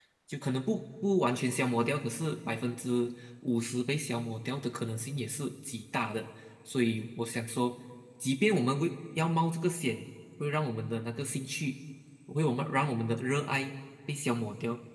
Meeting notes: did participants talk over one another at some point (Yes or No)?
No